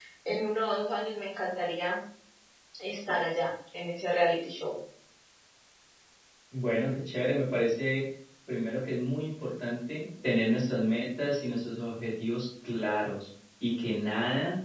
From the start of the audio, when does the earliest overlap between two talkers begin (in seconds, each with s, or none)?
none